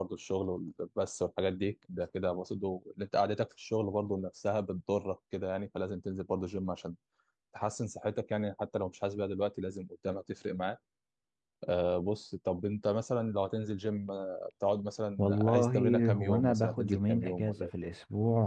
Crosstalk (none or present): present